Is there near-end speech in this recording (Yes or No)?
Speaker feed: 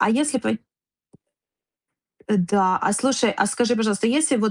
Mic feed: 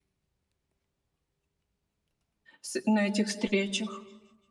Yes